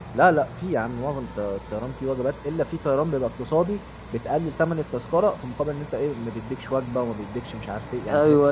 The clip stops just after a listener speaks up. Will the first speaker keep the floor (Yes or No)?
No